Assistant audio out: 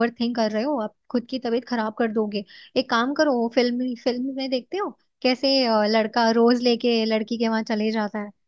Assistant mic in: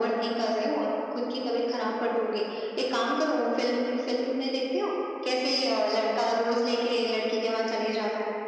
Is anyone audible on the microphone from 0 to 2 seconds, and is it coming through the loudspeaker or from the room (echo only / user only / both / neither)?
echo only